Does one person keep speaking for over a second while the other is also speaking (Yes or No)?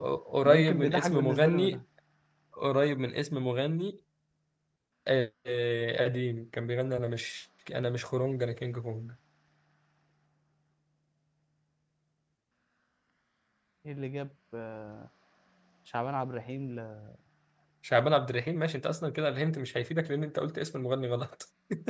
Yes